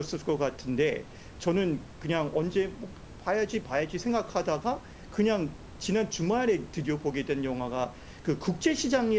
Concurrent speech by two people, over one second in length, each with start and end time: none

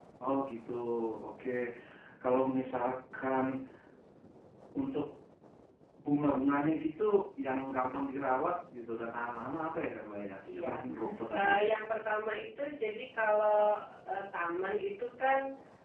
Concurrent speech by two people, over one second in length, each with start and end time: none

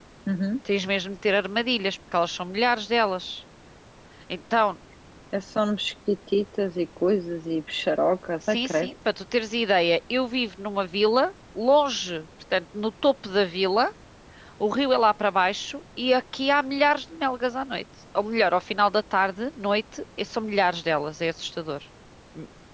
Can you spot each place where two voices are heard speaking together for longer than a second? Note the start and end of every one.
none

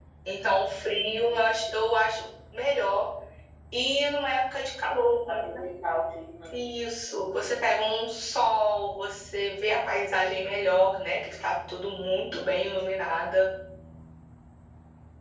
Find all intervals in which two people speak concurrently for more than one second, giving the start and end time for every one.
none

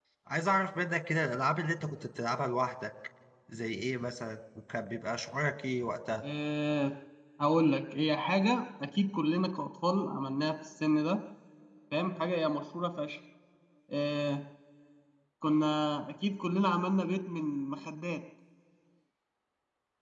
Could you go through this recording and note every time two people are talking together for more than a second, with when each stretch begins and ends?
none

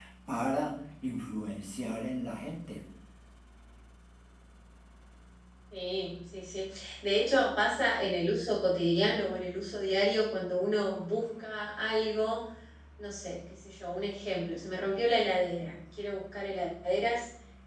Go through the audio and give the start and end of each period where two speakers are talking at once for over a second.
none

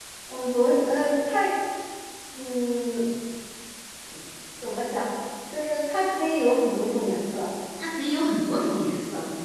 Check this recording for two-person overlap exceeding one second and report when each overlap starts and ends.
none

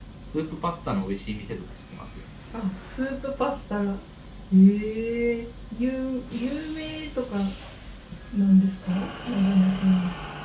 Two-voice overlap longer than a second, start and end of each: none

